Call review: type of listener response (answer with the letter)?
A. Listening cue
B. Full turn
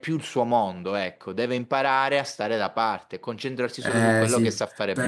B